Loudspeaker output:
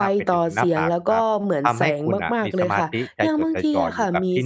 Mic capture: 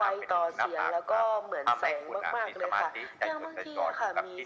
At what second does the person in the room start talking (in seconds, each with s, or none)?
none